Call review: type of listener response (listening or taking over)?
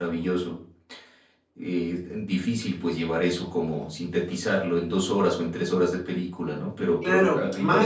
taking over